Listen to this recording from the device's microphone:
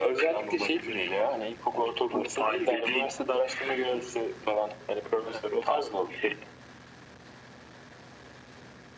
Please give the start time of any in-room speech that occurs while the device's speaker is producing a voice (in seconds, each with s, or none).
none